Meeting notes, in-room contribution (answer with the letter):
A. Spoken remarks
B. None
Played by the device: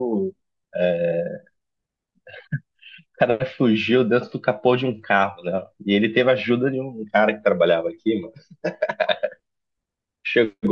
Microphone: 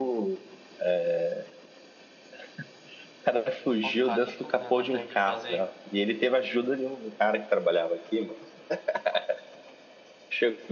A